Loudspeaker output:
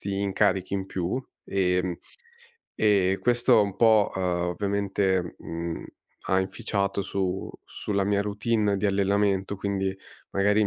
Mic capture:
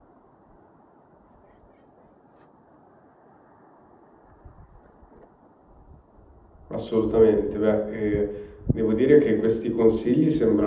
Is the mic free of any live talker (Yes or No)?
No